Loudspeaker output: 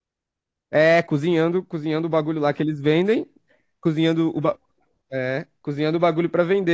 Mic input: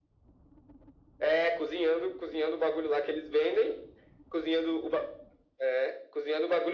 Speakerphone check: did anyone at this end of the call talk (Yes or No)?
No